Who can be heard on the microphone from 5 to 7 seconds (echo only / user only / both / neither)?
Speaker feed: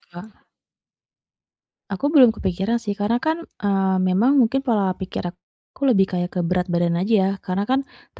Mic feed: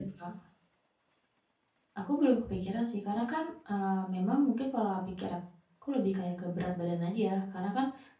echo only